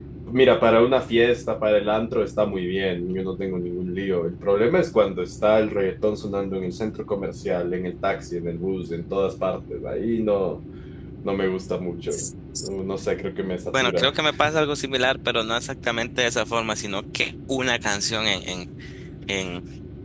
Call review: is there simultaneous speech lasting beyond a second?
No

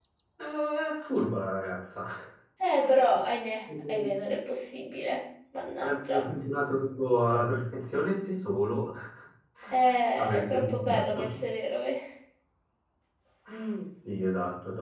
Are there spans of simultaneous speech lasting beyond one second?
Yes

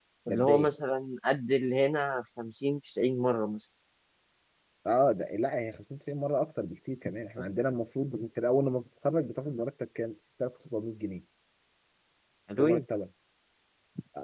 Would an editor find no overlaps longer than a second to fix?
Yes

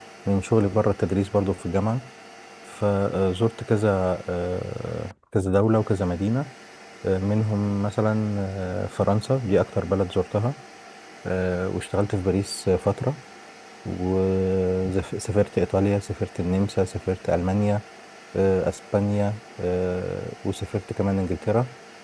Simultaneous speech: No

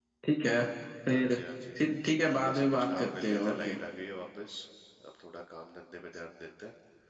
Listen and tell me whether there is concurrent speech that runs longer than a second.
Yes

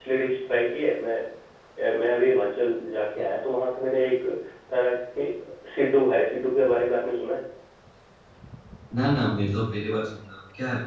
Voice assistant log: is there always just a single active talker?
Yes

